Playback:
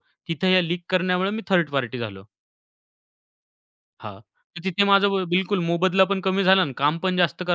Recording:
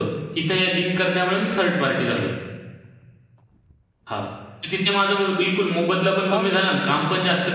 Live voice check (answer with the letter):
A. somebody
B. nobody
A